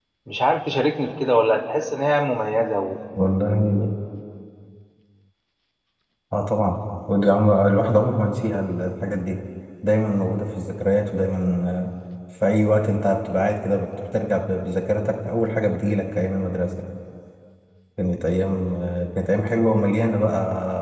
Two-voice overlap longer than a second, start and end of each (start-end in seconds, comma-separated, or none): none